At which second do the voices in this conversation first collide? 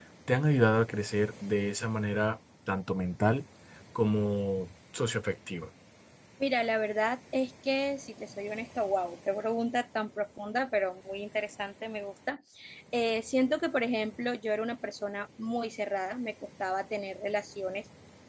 none

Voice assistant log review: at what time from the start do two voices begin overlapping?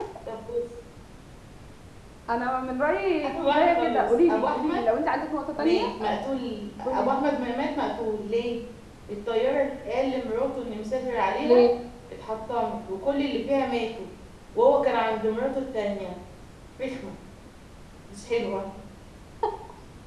3.2 s

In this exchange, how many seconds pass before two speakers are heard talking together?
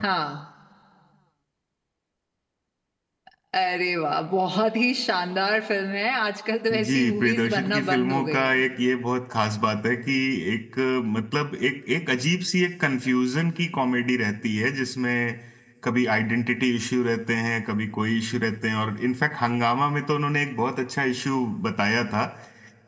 6.7 s

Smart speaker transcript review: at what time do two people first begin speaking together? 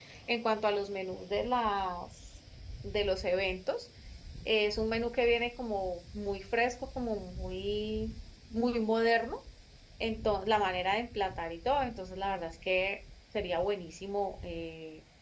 none

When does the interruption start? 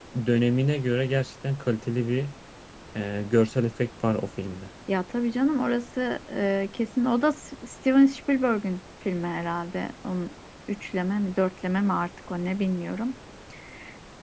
none

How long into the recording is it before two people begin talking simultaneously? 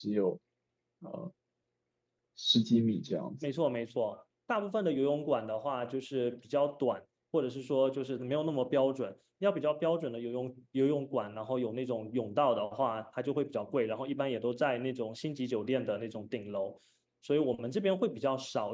none

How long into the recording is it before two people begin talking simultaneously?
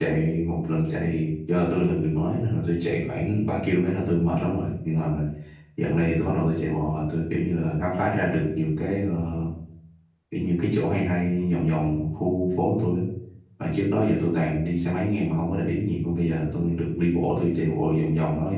none

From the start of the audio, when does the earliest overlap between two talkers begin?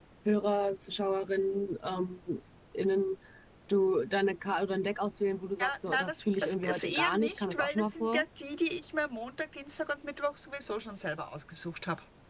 5.6 s

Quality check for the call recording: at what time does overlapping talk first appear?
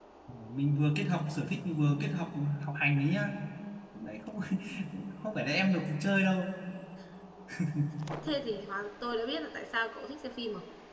none

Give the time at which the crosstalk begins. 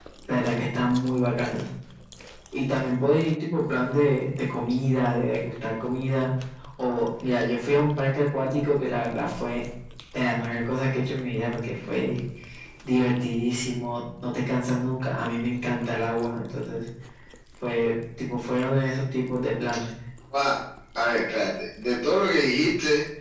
none

